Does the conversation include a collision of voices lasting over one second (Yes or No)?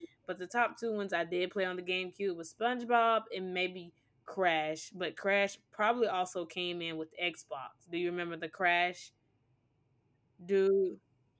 No